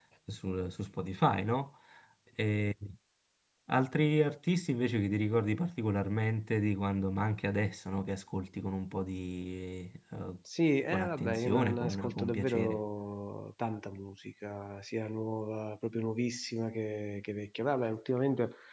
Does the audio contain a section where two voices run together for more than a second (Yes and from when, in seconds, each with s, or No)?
Yes, from 10.9 s